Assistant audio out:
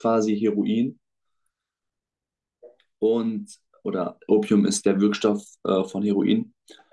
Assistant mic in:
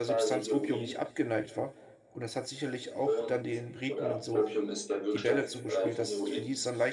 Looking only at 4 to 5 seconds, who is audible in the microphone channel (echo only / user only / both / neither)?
both